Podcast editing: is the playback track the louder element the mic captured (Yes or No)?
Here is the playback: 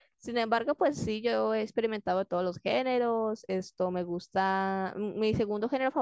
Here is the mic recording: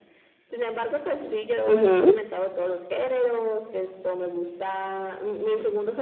No